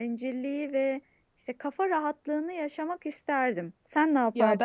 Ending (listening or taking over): taking over